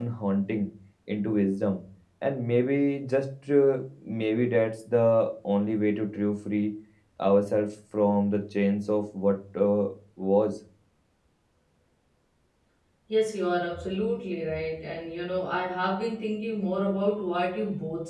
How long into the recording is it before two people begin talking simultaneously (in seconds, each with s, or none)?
none